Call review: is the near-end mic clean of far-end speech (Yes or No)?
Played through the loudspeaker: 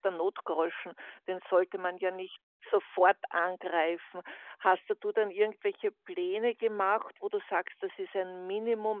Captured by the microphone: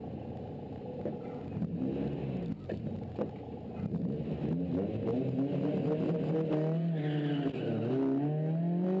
Yes